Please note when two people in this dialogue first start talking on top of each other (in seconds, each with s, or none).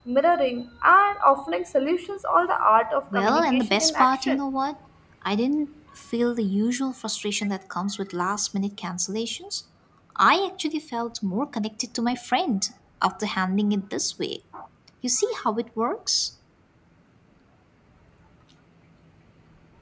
3.1 s